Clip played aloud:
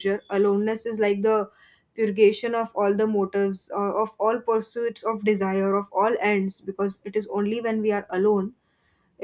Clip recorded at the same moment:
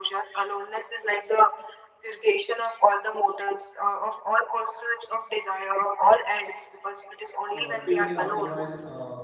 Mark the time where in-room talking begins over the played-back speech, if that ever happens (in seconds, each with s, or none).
7.5 s